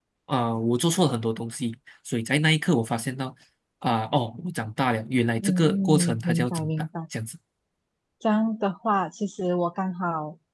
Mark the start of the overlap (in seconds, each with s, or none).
5.4 s